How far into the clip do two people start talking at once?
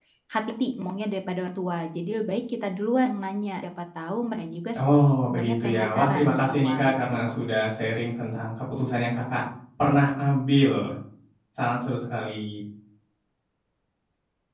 5.3 s

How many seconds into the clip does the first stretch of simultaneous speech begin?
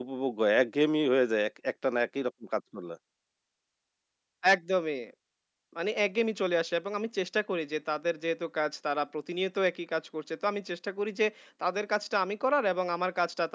none

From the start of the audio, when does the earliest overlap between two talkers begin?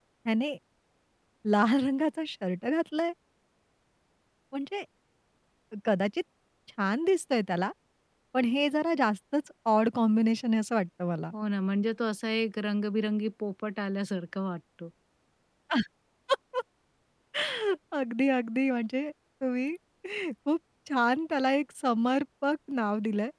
none

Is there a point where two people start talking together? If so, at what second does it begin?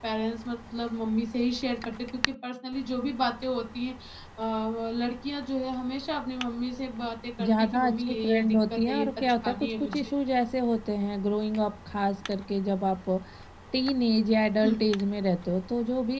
7.4 s

